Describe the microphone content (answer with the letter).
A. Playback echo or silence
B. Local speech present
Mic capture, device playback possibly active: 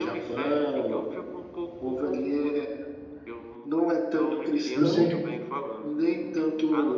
B